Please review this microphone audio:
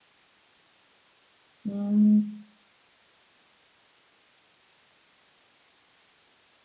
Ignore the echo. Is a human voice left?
Yes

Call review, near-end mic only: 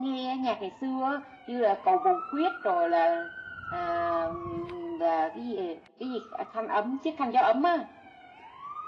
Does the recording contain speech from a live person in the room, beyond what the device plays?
No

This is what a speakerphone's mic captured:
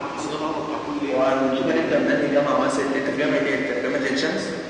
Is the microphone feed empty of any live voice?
Yes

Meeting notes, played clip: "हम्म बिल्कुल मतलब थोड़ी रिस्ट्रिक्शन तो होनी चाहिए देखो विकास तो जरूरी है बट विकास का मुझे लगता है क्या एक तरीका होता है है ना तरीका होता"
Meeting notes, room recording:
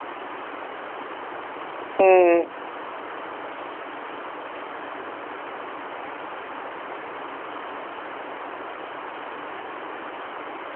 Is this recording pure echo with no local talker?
No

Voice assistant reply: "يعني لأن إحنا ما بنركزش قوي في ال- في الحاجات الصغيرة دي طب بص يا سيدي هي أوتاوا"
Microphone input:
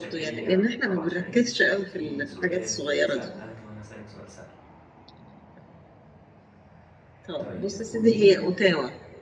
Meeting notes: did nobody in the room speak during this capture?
No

